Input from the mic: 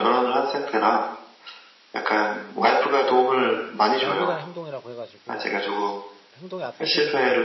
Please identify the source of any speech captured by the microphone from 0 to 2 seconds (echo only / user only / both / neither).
echo only